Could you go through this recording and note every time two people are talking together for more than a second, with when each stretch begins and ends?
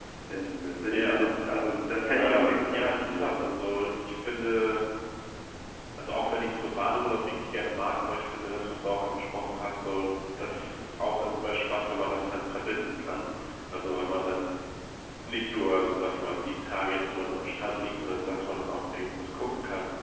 2.2-3.4

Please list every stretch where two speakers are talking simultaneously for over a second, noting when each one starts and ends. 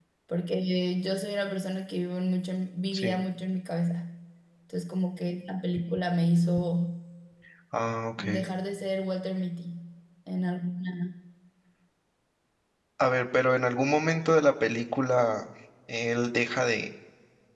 none

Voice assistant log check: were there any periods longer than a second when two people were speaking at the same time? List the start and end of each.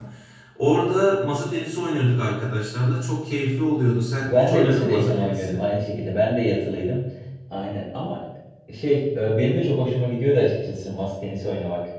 4.2-5.6

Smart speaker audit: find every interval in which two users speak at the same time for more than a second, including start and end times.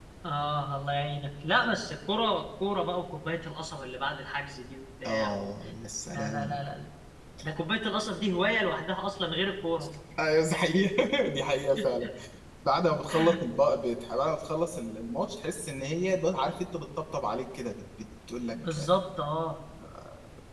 none

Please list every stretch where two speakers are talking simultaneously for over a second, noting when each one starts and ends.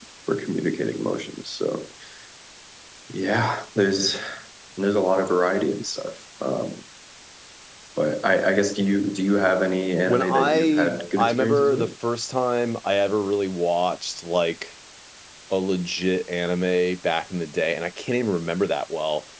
10.0-11.8

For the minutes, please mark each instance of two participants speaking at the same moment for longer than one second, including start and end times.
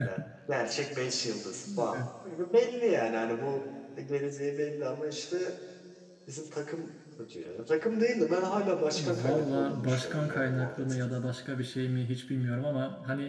9.0-11.0

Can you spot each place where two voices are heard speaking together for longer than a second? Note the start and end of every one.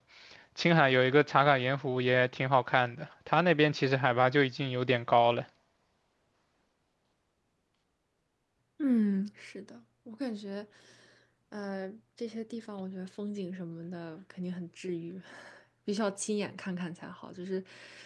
none

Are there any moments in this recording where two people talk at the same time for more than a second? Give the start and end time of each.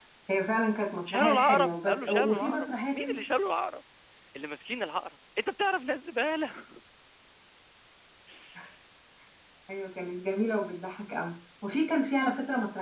1.1-3.2

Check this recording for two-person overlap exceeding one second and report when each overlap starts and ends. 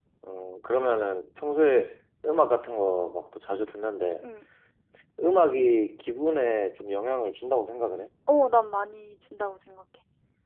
none

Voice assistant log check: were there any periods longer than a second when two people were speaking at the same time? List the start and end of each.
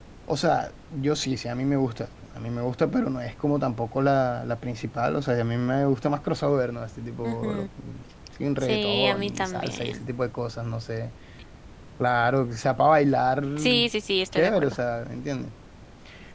8.6-10.0

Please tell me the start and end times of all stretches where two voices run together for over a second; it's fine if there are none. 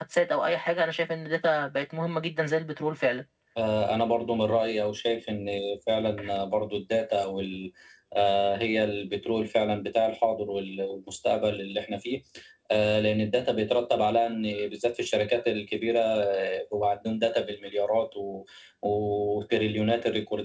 none

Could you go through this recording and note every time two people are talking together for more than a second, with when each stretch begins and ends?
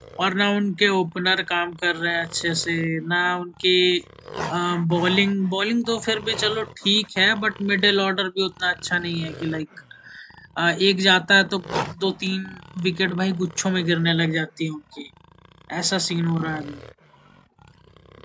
none

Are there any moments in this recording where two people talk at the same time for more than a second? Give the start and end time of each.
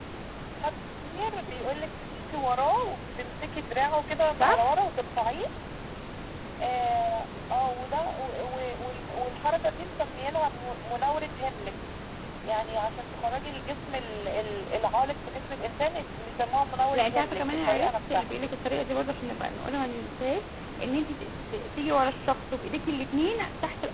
16.9-18.3

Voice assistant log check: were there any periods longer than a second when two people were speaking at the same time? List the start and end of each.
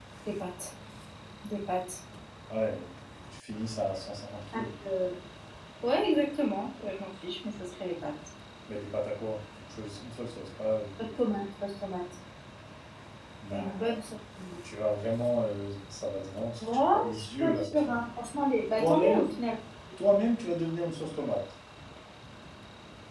16.6-18.0

